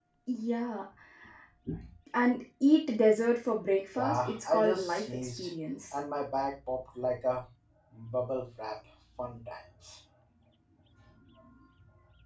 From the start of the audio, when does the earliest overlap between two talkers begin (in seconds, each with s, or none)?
4.0 s